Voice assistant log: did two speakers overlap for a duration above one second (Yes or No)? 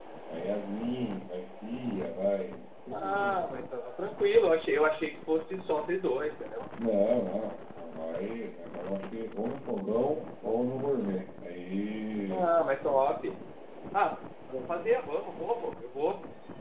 No